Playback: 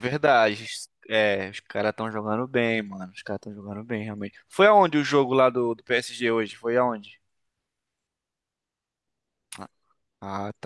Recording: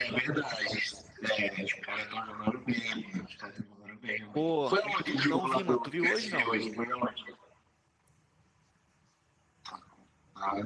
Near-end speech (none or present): present